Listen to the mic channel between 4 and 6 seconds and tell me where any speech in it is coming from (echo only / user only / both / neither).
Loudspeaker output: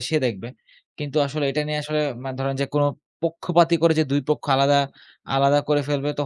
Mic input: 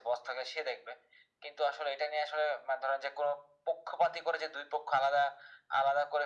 echo only